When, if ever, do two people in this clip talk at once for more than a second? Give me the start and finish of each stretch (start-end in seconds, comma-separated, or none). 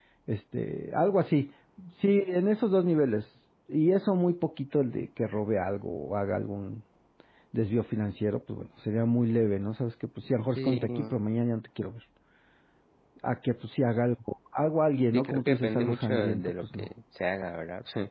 15.1-16.9